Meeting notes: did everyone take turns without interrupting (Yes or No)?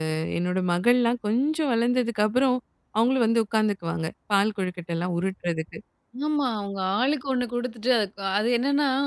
Yes